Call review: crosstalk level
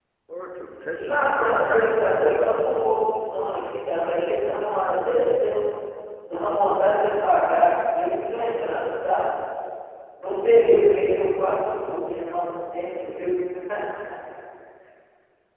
present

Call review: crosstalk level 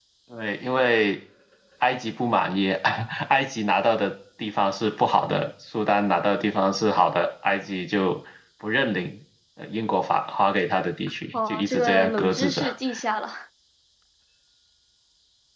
present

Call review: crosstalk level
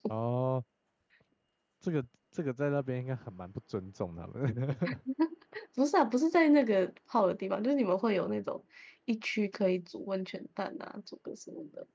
none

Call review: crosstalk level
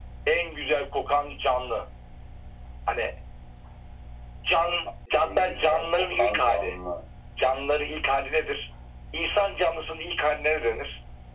present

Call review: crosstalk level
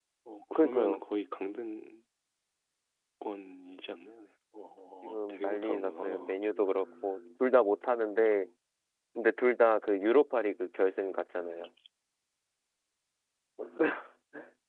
present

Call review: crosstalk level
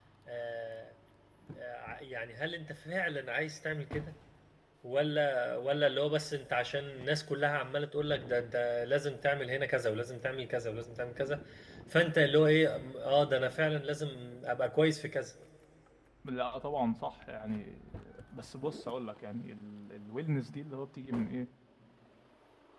none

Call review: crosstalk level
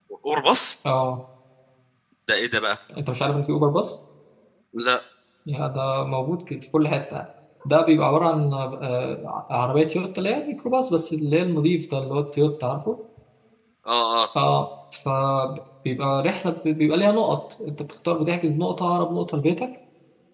none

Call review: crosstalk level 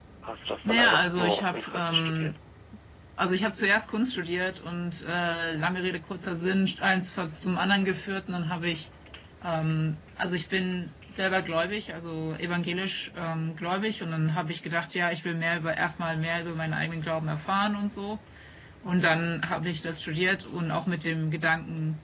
present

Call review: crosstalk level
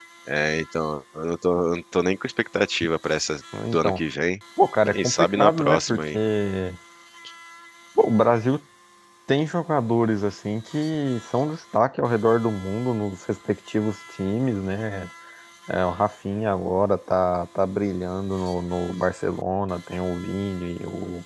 present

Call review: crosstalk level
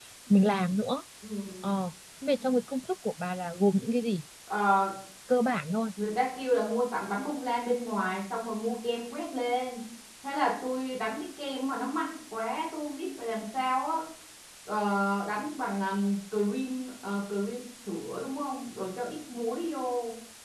none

